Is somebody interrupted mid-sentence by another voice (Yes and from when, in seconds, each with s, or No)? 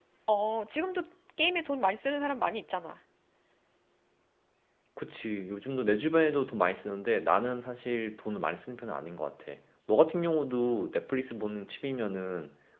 No